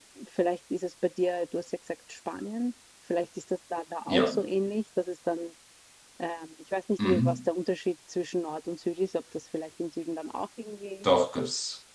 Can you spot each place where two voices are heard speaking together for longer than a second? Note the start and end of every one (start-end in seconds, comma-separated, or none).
none